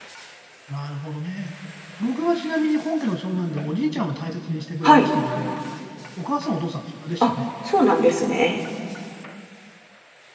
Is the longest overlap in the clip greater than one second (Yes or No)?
No